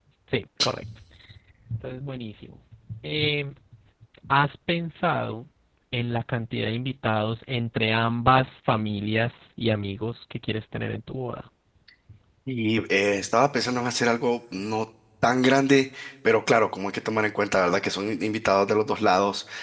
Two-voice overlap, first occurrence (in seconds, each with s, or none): none